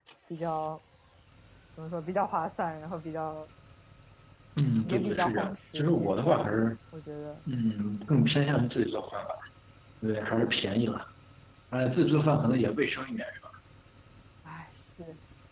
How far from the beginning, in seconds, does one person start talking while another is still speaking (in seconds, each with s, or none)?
4.8 s